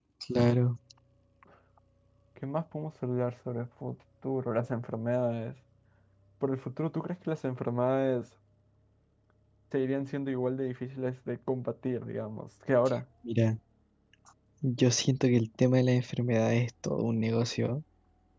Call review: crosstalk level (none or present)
none